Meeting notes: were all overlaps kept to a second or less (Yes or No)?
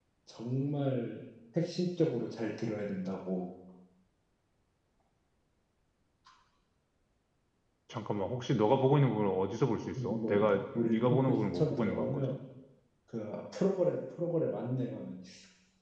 No